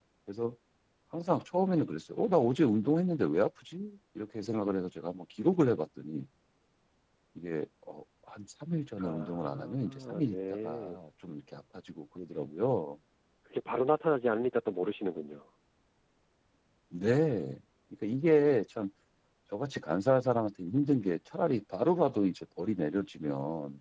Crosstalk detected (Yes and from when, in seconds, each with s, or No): Yes, from 9.0 s